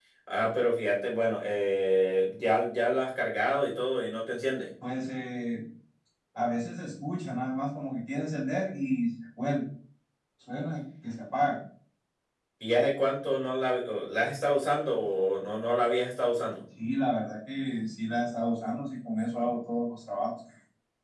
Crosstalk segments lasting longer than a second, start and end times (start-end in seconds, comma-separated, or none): none